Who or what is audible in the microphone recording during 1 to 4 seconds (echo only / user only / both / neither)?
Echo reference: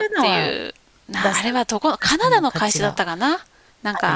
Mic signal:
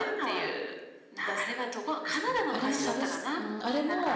both